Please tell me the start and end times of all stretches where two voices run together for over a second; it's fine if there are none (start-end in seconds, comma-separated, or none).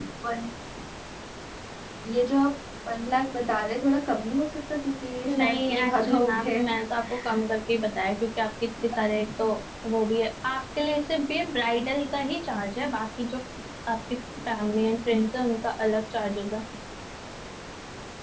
5.3-6.7